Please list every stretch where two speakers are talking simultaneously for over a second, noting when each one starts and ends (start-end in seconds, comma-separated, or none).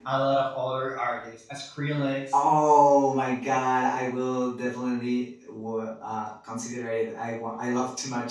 none